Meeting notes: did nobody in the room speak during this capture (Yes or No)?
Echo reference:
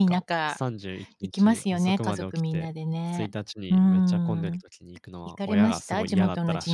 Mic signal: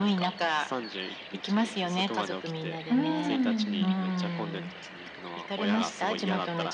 No